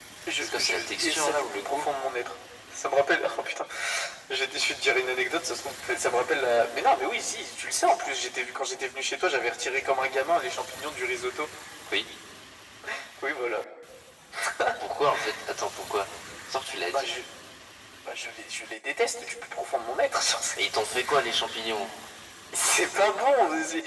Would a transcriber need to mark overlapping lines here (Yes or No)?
Yes